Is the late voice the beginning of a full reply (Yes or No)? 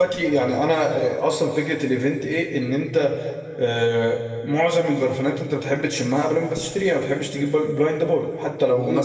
Yes